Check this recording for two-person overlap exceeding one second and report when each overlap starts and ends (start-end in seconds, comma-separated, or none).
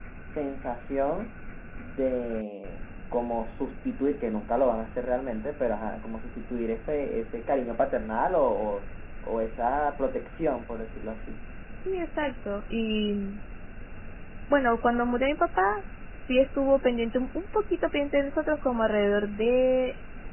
none